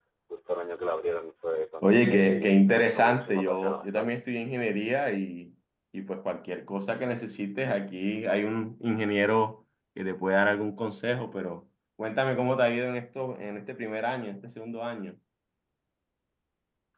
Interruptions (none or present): present